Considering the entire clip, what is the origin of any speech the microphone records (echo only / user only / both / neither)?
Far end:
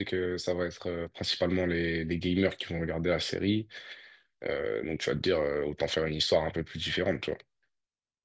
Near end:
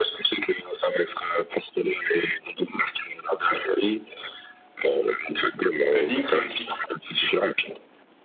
both